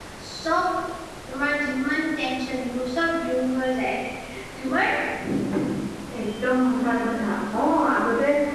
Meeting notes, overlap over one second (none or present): none